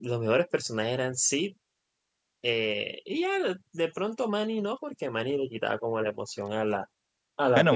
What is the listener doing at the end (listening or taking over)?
taking over